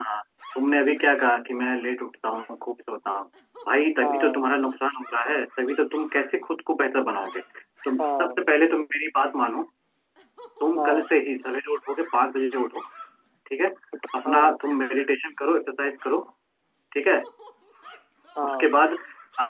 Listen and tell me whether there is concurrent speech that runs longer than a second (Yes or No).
No